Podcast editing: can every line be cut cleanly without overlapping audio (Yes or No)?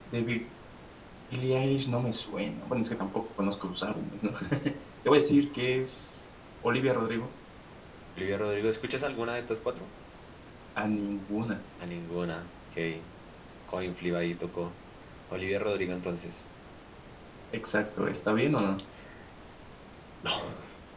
Yes